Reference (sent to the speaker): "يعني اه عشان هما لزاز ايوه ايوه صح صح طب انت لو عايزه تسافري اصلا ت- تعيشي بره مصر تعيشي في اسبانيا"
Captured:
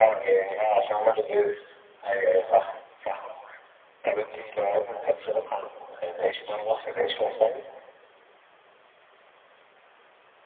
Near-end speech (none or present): none